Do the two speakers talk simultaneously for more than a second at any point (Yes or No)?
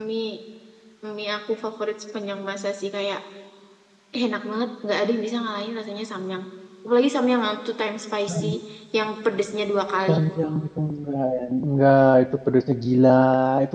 No